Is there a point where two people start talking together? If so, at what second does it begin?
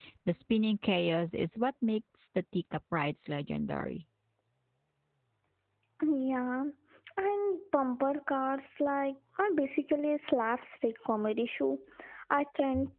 none

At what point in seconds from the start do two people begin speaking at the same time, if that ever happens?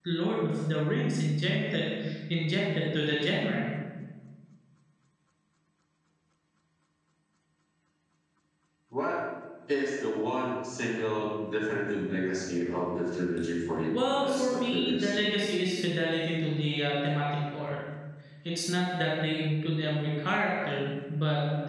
13.9 s

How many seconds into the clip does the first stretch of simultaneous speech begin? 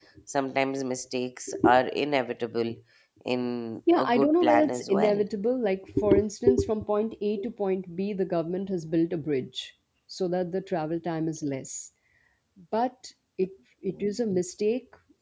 3.9 s

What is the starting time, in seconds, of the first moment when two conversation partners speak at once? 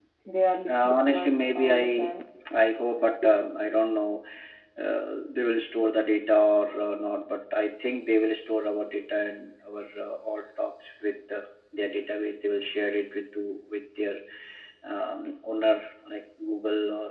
0.7 s

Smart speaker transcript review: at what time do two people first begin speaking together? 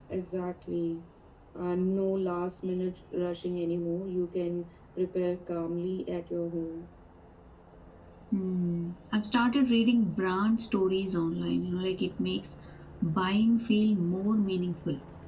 none

